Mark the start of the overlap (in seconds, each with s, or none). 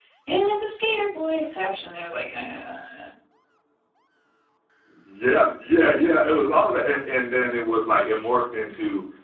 none